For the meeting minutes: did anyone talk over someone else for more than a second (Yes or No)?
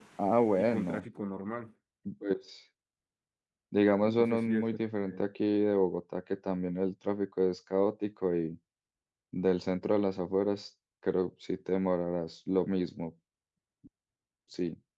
Yes